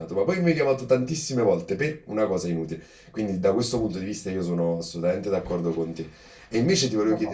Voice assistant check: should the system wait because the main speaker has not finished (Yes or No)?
Yes